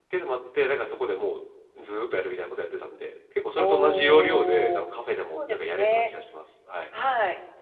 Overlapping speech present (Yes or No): Yes